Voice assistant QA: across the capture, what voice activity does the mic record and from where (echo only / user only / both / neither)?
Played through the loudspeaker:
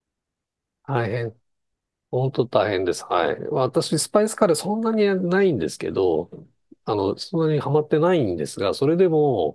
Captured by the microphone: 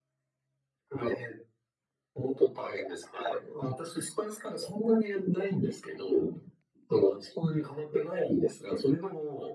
echo only